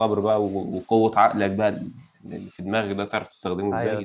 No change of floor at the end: Yes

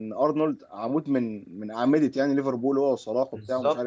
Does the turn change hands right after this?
No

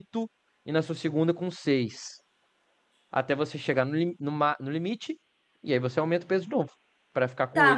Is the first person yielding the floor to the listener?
Yes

